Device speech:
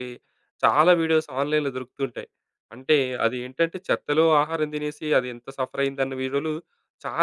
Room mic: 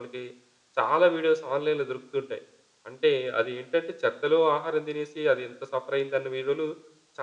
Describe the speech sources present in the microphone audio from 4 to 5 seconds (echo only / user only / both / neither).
echo only